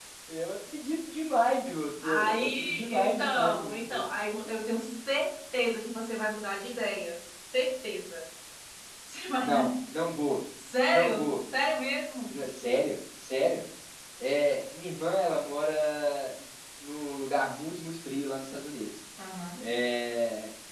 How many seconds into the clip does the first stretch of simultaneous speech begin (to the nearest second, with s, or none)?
2 s